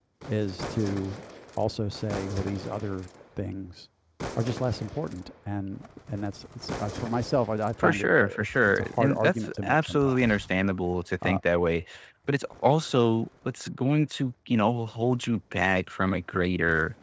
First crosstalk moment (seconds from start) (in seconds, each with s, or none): 7.8 s